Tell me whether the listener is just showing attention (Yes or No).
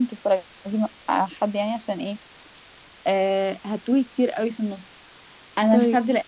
Yes